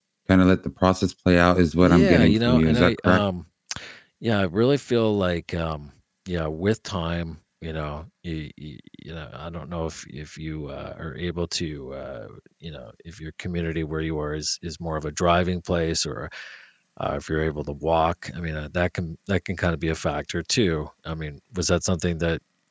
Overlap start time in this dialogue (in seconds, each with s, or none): 1.8 s